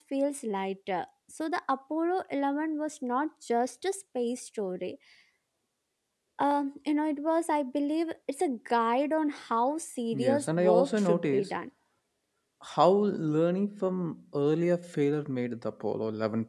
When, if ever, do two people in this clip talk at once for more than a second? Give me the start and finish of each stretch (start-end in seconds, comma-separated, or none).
10.1-11.5